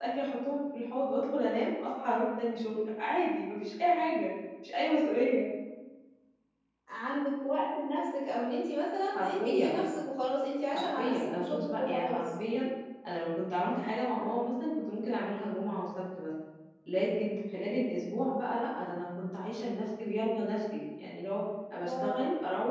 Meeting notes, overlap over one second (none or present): present